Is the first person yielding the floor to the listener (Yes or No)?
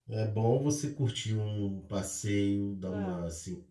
No